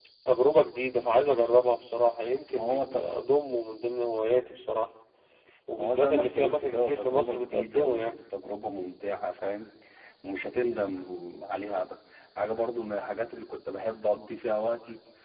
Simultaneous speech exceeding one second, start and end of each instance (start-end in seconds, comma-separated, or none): 5.8-8.2